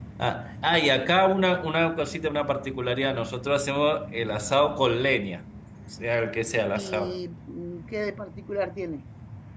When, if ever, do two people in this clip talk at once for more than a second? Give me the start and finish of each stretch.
none

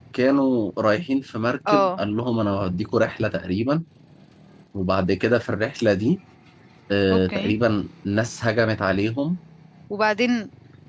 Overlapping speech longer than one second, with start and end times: none

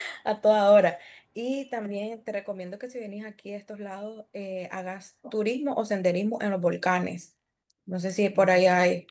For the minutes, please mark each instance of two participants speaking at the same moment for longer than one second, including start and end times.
none

